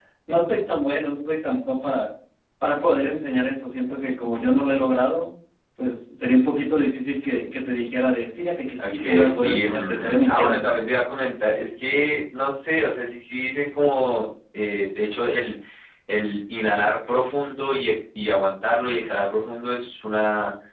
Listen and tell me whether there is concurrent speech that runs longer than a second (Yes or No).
Yes